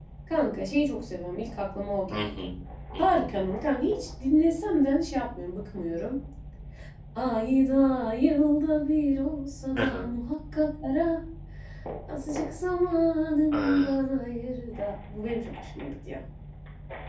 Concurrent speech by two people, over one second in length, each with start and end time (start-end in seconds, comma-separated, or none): none